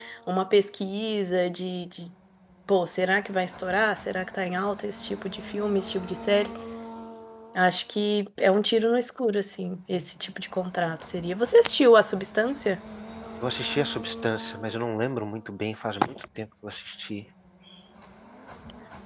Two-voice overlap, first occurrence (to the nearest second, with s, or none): none